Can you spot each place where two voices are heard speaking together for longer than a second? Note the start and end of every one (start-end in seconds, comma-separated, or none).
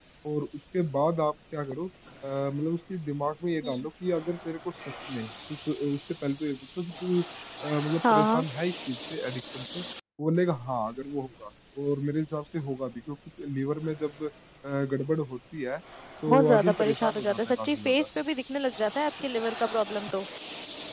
16.3-18.1